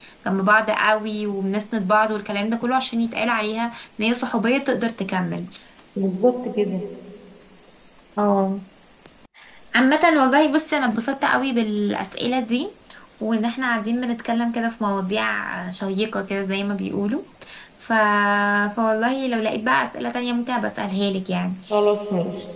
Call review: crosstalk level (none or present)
none